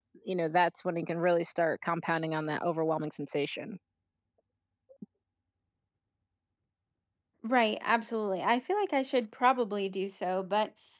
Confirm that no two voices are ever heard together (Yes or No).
Yes